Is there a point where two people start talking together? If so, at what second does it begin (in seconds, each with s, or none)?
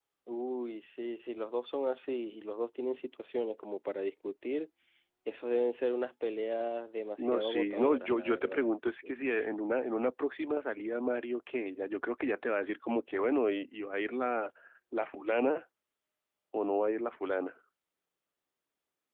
7.2 s